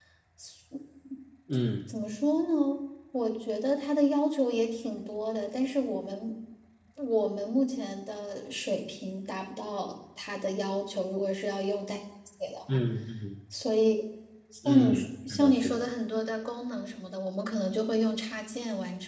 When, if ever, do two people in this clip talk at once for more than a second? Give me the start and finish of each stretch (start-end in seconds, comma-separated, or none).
14.6-15.9